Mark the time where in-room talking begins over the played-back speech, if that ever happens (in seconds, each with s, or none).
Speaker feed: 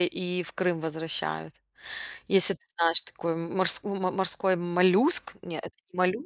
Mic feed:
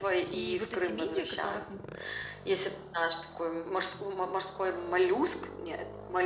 0.3 s